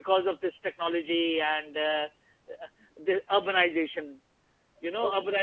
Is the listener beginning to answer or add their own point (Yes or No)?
No